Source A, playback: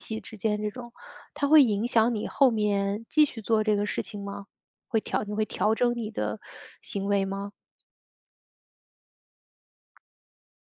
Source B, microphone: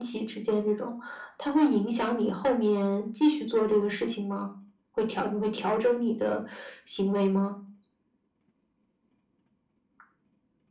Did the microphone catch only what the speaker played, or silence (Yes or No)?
Yes